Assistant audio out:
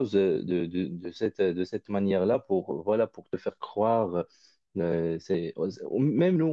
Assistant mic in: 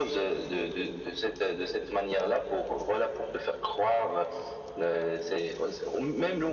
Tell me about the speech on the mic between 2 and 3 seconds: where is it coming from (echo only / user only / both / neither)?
echo only